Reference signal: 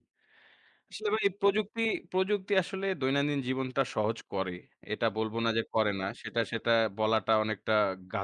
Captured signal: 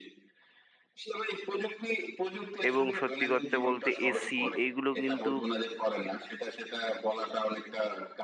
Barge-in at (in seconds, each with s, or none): 2.7 s